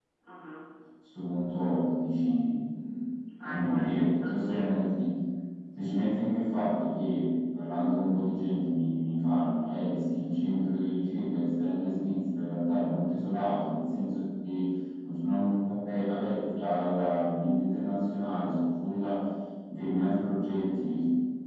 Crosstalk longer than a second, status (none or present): present